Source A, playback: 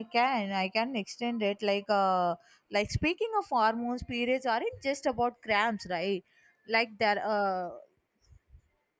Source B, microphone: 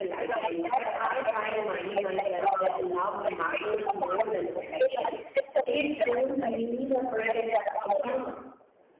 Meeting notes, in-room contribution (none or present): present